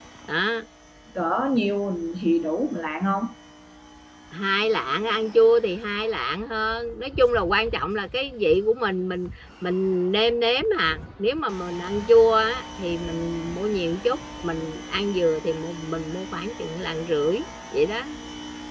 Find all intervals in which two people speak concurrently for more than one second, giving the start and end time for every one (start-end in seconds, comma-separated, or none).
none